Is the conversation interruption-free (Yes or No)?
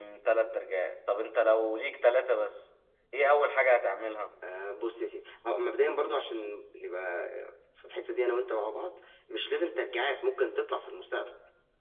Yes